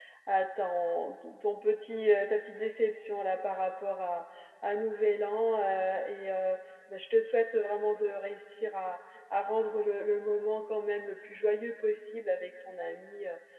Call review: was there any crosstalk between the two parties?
No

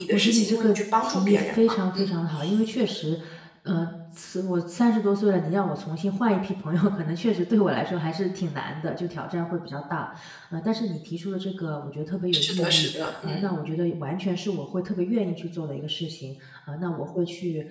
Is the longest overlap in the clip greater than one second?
Yes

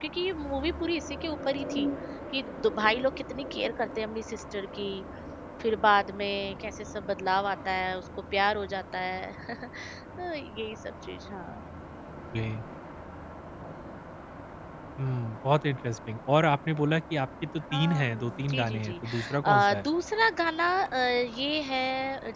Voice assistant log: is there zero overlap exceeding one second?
No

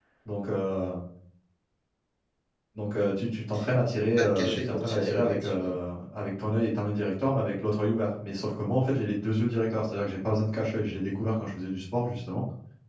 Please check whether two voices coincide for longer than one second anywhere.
Yes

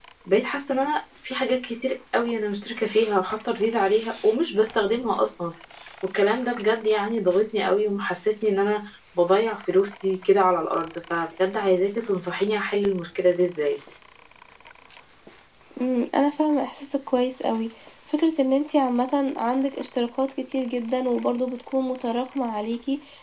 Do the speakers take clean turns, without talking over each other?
Yes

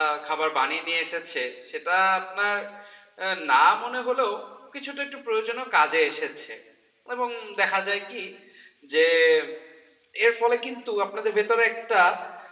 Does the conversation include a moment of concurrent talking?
No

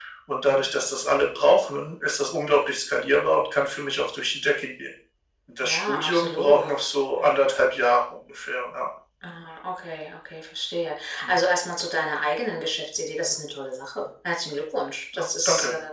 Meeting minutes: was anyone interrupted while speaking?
Yes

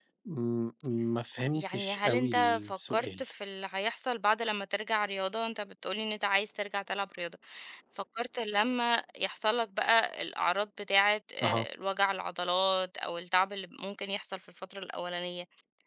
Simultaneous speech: Yes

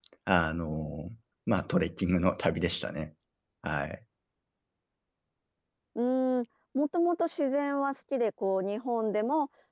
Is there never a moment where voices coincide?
Yes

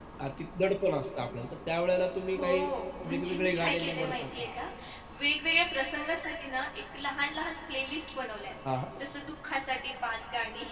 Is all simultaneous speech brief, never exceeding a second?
No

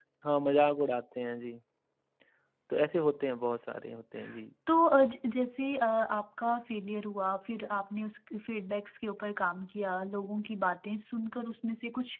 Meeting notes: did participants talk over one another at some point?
No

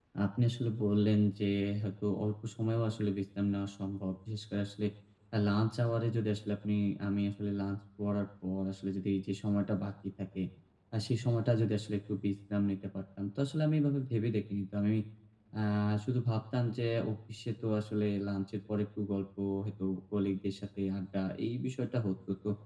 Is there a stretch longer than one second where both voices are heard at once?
No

